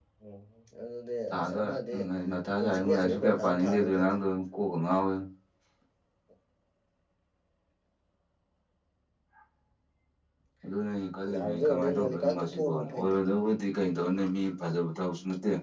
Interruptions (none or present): present